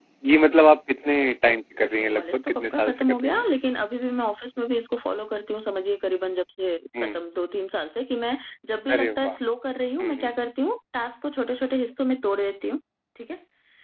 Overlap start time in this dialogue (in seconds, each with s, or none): 2.1 s